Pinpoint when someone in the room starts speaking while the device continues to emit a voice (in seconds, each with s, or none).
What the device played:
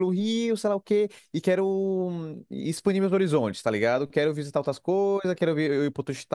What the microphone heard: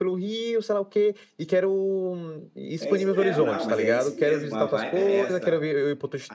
2.8 s